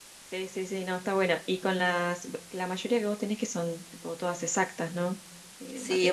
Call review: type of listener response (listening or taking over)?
taking over